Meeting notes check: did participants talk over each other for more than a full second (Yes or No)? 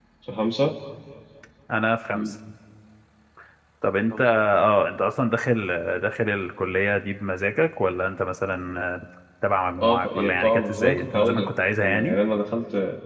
Yes